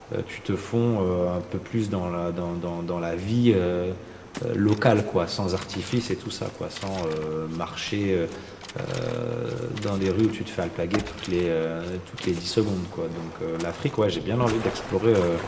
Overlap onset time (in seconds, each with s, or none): none